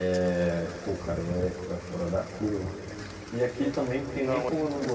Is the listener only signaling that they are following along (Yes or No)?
Yes